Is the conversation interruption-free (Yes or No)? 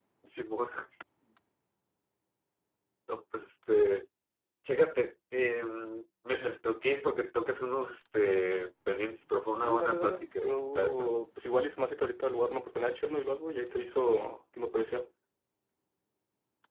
No